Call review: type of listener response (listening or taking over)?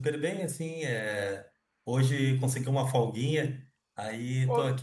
listening